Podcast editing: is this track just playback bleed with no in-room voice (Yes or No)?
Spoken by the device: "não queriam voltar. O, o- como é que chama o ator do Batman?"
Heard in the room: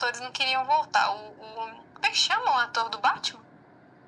Yes